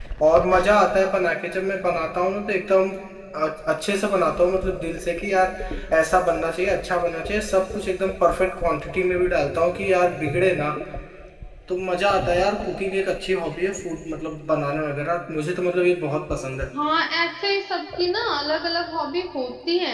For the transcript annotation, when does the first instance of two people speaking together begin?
none

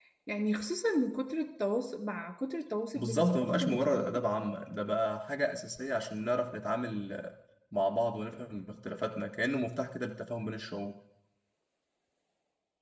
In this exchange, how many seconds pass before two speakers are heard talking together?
3.0 s

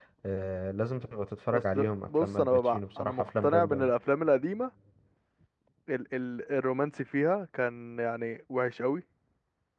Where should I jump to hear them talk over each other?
1.5 s

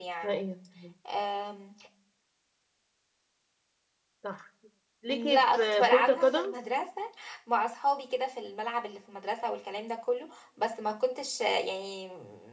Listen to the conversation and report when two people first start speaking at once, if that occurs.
5.1 s

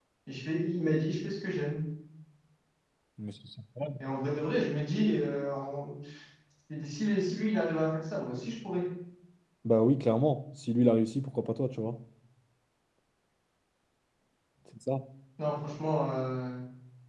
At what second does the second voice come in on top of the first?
none

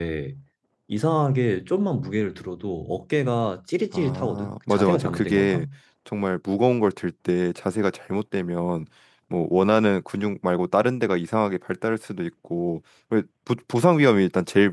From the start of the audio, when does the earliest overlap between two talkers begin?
3.9 s

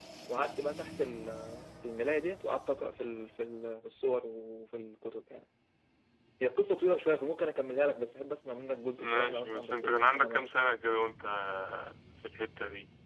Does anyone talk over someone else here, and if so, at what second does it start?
9.0 s

